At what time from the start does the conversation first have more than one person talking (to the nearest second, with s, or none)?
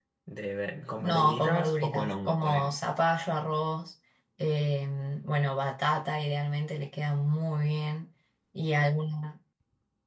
1 s